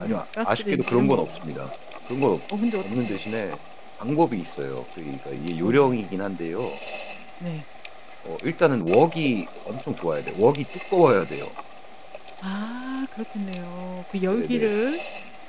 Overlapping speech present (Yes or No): Yes